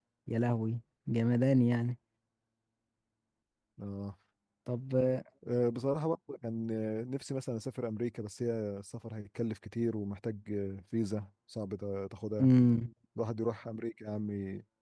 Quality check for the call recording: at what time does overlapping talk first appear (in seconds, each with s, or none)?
none